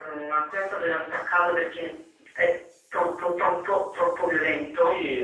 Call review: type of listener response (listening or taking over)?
taking over